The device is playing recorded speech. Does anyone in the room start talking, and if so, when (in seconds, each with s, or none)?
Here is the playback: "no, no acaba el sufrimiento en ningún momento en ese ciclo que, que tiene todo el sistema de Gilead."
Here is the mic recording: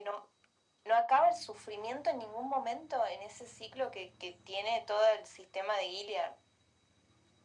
none